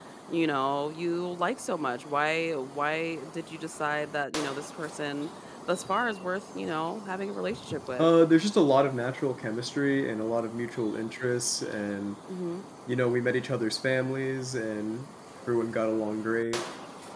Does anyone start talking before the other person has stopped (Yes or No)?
No